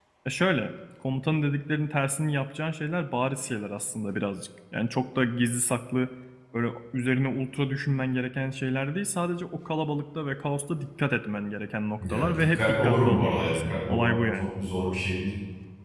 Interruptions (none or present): present